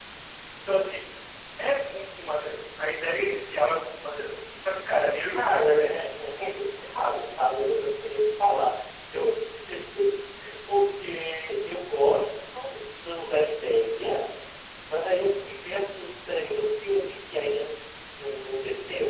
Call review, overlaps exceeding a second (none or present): present